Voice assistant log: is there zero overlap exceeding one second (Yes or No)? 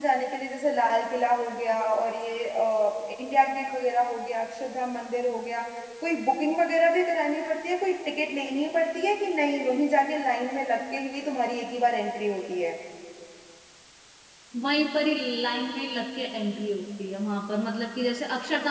Yes